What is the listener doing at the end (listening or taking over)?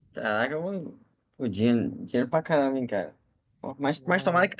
listening